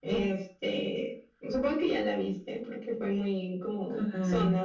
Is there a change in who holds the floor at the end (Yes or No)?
No